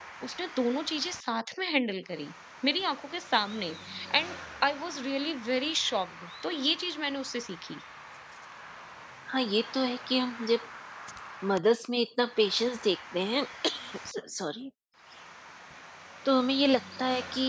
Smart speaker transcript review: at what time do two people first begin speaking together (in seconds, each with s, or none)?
none